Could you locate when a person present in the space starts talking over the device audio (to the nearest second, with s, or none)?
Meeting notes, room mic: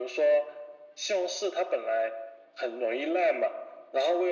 none